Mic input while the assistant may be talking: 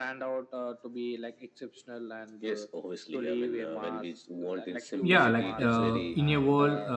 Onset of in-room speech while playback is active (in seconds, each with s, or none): 5.0 s